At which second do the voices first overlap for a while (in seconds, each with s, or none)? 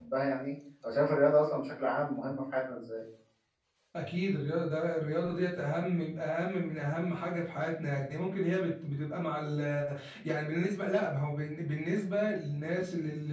none